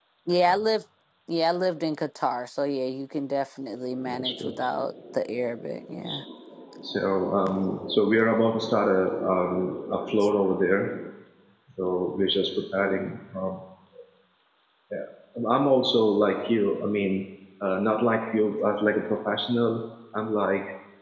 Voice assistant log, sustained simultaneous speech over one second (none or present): none